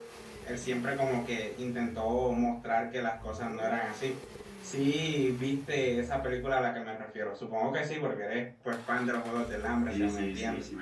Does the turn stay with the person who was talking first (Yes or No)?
No